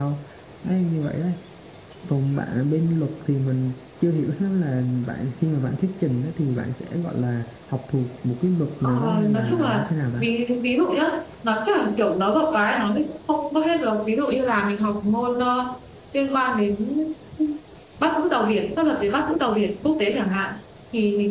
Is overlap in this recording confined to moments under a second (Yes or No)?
No